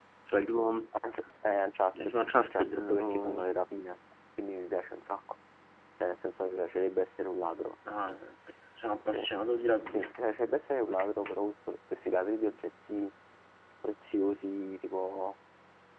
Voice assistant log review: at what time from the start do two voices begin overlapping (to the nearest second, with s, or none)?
2 s